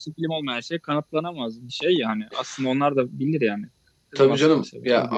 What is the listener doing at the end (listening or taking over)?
taking over